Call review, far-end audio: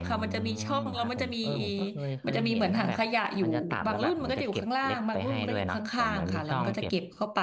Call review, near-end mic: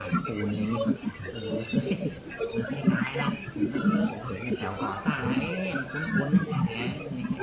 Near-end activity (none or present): present